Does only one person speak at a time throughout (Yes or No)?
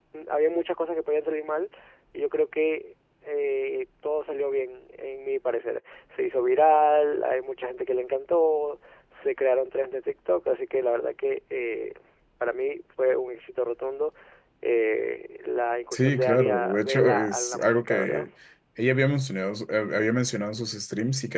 No